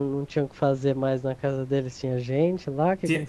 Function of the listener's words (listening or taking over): taking over